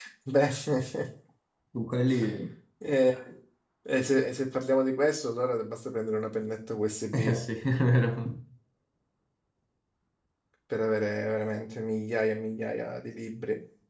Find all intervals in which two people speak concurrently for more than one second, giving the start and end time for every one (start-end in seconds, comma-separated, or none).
none